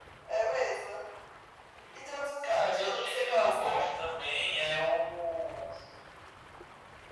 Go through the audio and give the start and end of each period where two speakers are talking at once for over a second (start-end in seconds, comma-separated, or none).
2.4-3.8